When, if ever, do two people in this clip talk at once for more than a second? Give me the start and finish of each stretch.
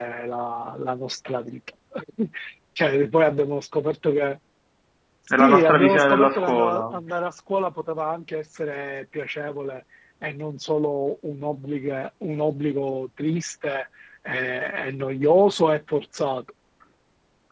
5.4-6.8

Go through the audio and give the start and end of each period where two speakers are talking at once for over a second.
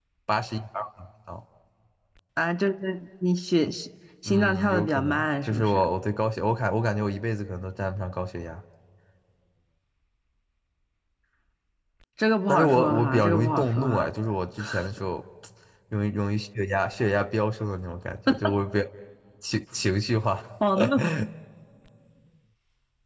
4.3-5.8, 12.5-14.1

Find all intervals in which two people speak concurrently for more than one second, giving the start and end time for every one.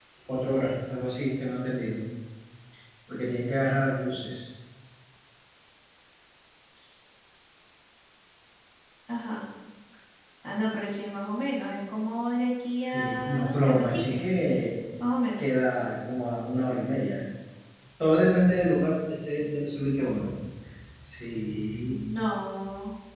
12.8-14.2

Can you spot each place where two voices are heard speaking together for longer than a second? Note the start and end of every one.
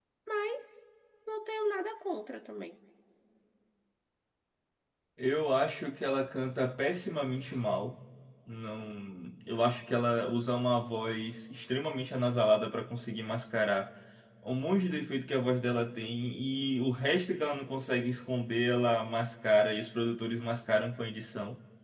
none

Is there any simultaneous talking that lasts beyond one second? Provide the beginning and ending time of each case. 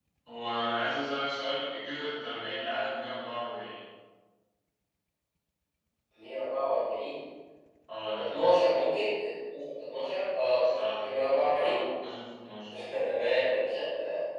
none

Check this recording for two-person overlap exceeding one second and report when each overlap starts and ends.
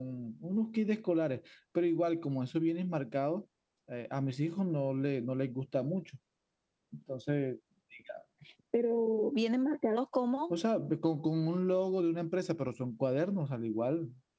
none

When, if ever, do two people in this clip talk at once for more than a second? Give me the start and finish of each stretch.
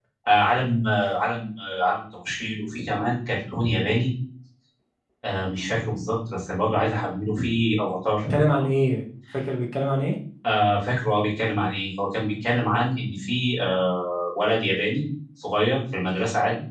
none

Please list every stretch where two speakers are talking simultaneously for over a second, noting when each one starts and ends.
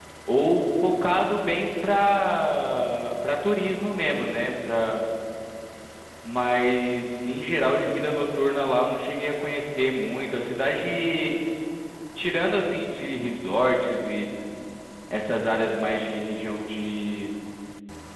none

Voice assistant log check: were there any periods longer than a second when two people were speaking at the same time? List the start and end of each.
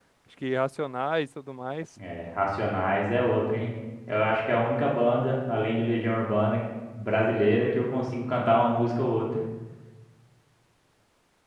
none

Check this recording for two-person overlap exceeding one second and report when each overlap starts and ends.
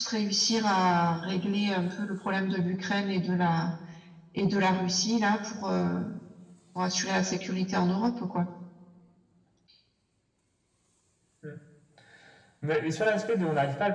none

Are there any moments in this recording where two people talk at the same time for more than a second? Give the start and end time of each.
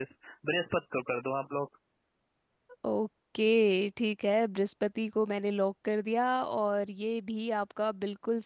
none

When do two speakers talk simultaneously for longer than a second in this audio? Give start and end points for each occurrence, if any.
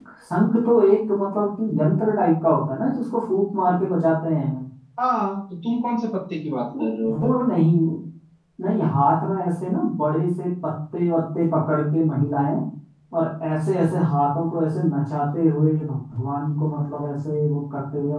none

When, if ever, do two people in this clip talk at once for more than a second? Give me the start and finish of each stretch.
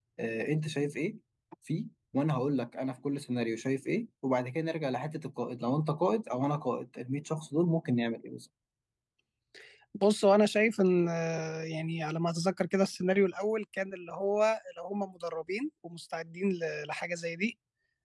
none

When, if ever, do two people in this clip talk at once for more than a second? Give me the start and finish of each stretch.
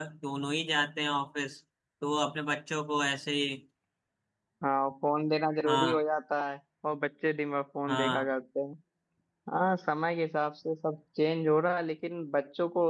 none

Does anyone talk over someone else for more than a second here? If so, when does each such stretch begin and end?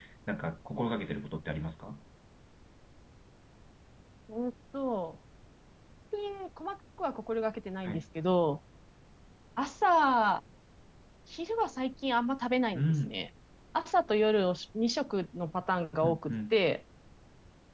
none

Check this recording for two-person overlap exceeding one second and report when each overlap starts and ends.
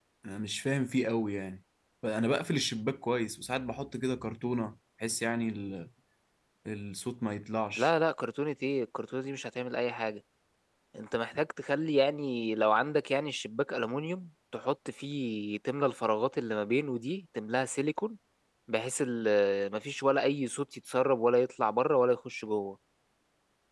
none

